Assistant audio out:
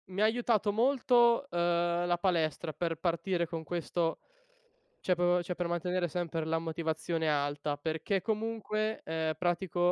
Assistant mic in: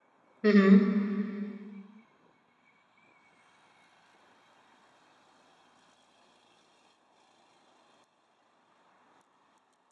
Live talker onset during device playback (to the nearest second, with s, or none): 0 s